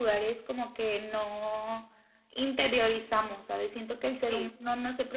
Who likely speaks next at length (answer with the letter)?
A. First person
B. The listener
A